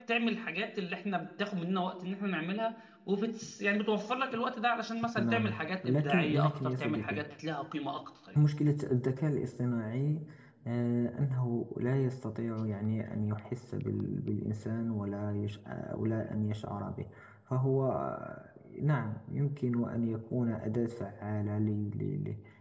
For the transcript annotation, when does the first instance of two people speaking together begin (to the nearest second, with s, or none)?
5 s